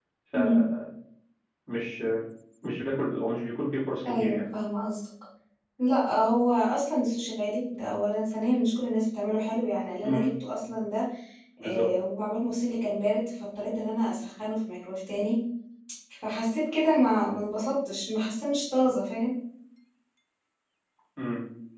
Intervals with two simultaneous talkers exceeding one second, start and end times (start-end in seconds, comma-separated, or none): none